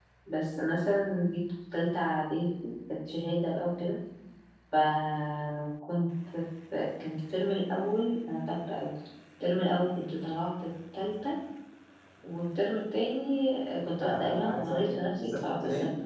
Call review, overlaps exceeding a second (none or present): present